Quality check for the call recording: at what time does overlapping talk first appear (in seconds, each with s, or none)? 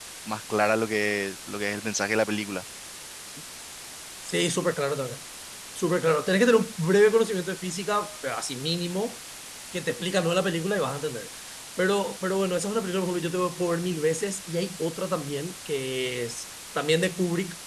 none